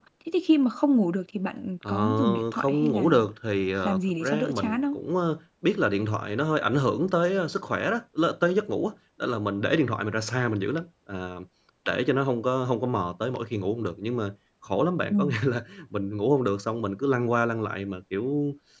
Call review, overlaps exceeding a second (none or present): present